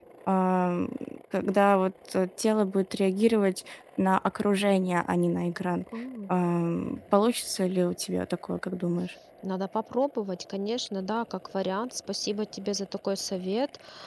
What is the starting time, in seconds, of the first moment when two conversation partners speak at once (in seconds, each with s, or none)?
none